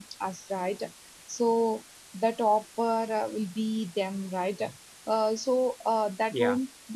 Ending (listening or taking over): listening